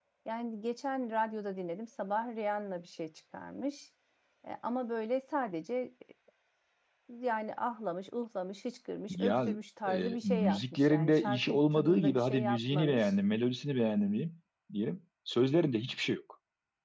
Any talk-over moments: Yes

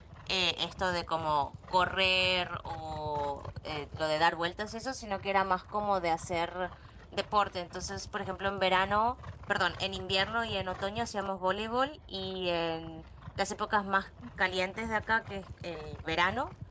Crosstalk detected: No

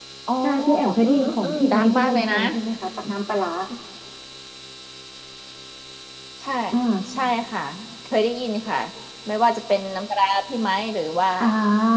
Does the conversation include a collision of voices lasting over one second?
Yes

